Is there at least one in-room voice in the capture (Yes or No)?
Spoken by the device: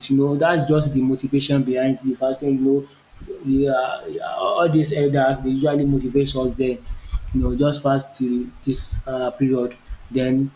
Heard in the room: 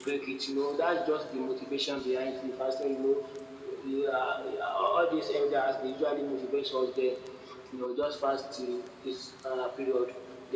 No